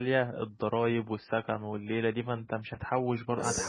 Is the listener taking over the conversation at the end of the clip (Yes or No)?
No